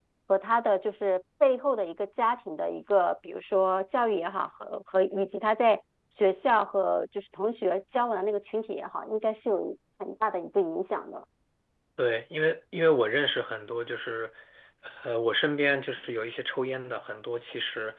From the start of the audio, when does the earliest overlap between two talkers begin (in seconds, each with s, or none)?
none